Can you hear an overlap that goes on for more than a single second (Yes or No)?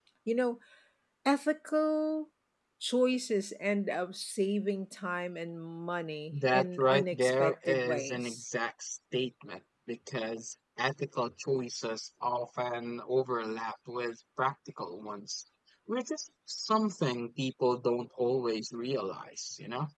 Yes